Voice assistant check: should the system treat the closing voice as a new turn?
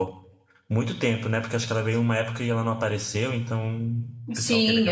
Yes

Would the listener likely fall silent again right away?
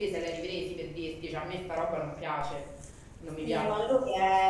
No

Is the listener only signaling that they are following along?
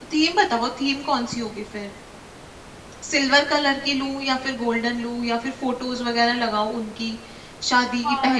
No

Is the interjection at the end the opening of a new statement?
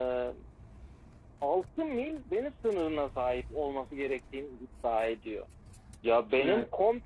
No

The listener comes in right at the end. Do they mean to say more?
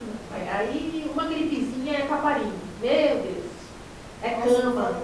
Yes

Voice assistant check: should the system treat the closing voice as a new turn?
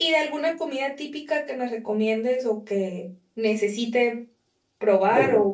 No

